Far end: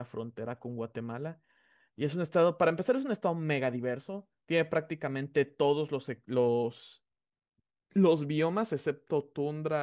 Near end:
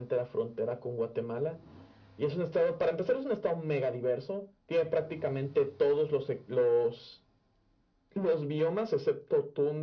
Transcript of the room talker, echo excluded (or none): none